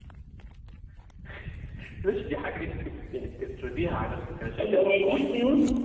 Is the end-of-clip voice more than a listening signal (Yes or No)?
Yes